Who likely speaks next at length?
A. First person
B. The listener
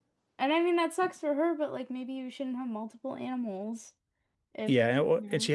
B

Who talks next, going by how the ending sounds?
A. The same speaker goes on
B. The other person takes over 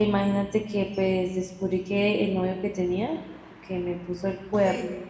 A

